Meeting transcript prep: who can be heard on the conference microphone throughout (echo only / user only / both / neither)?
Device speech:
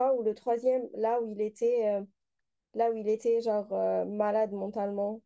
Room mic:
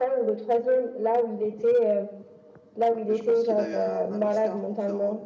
both